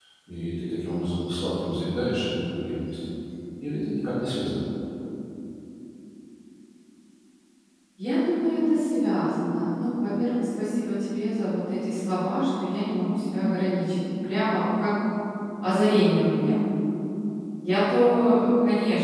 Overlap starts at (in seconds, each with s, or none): none